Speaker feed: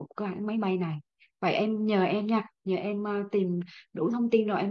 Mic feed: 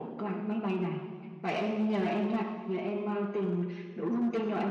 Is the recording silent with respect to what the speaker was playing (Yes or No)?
No